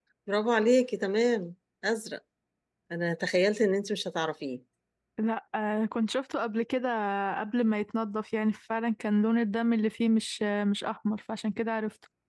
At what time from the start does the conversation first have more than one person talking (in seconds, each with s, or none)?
none